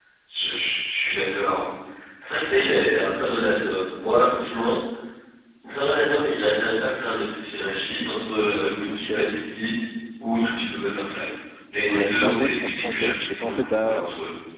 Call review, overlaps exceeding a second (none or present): present